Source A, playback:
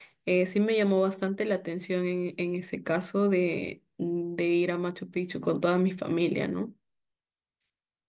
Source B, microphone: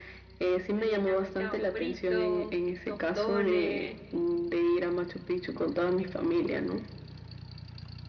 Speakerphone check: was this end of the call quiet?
No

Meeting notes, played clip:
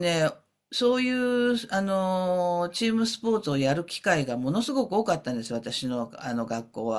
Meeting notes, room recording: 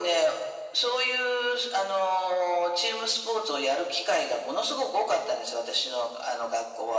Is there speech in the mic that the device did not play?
No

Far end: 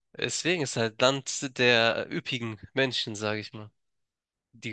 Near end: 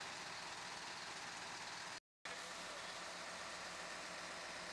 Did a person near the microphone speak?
No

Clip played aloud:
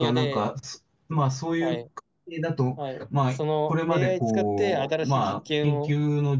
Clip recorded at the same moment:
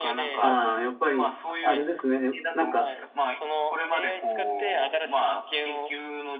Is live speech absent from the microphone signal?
No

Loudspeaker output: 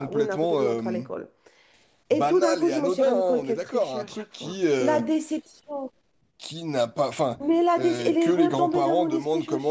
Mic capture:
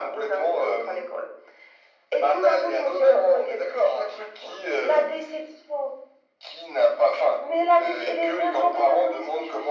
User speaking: No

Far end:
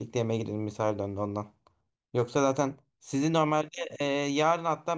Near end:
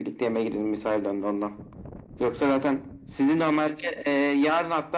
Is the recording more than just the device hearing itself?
No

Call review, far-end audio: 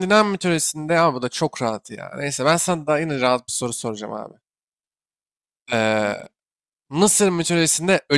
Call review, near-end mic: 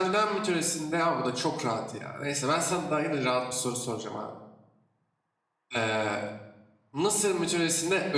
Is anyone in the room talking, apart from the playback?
No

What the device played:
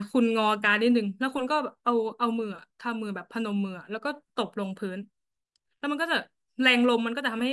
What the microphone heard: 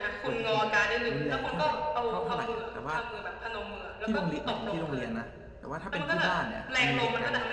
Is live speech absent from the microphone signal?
No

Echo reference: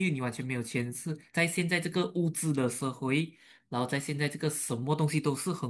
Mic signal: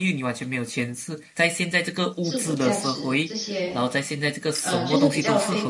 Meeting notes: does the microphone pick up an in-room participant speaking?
Yes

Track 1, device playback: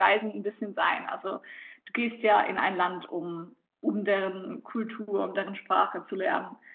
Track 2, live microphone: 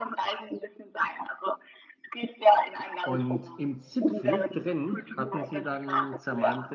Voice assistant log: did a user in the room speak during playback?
Yes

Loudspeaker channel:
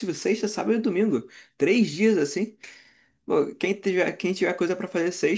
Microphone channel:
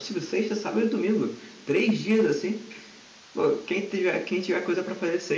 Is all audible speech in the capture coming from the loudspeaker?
Yes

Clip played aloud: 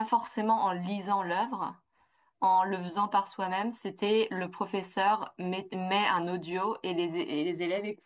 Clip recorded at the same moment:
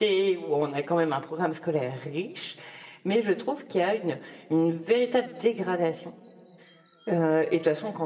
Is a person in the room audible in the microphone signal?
Yes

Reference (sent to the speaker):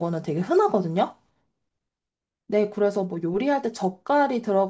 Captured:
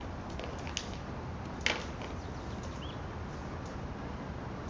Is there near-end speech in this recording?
No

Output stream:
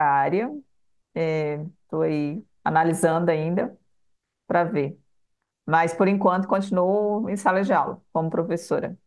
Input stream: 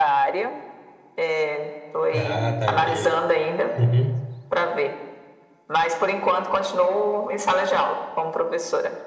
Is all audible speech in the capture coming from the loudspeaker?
No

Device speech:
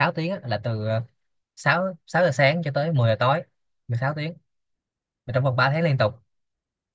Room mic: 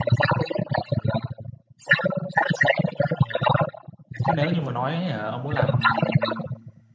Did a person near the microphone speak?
Yes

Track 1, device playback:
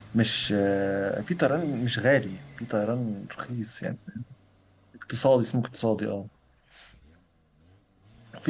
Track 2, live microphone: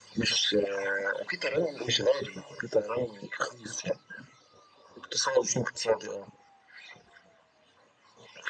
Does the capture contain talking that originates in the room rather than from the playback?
No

